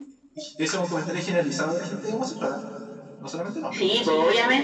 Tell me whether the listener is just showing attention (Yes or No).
No